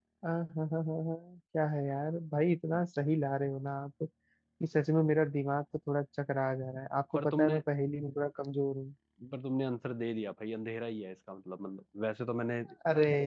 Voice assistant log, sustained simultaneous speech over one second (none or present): none